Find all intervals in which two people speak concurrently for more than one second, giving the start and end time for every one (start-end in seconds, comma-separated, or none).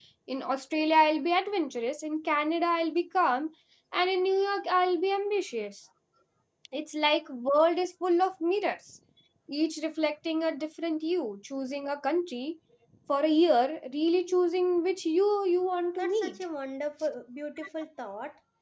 none